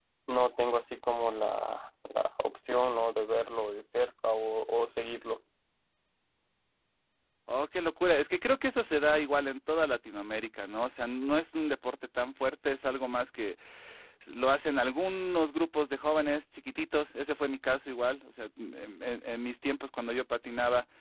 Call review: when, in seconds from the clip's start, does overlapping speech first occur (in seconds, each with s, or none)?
none